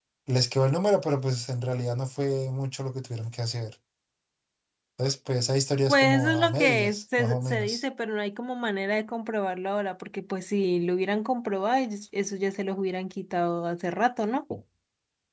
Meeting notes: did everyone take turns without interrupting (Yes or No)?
No